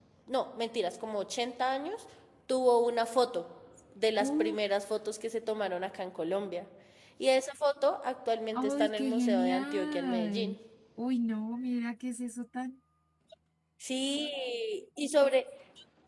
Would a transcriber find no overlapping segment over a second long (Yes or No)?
No